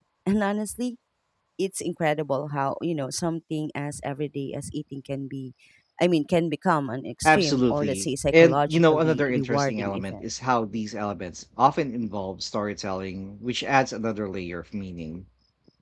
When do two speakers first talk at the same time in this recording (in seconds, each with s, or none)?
7.2 s